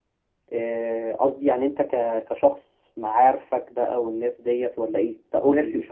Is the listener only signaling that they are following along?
No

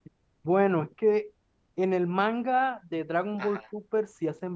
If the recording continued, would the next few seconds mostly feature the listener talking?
No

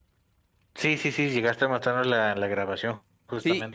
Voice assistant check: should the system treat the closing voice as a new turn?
Yes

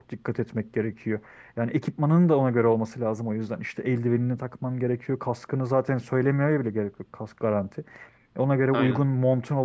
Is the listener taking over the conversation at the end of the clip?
No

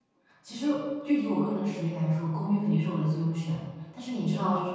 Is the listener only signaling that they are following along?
Yes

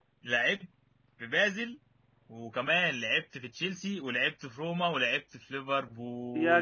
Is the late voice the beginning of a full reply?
Yes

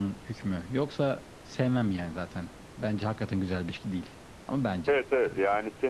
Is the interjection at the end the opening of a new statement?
Yes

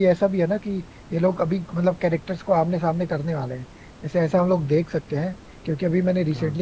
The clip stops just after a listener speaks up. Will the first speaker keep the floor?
Yes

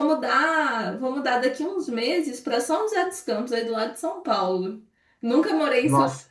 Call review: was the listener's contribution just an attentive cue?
Yes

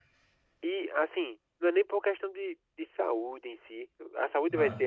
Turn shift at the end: No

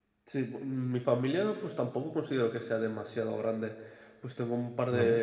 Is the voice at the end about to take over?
No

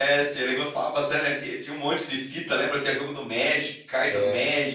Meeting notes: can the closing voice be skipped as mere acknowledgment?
No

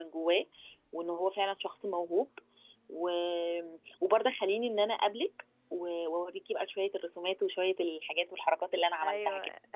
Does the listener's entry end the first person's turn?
Yes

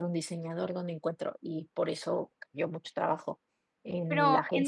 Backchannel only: No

